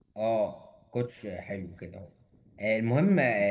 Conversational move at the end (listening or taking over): listening